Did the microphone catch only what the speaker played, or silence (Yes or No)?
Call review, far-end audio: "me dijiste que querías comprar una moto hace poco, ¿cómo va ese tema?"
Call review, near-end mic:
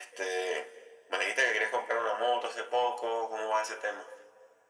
Yes